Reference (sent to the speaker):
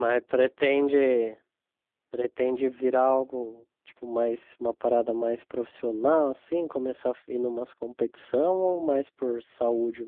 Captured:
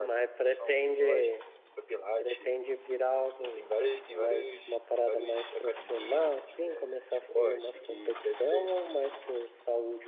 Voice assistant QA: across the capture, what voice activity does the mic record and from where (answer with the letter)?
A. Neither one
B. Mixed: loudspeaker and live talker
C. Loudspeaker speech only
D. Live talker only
B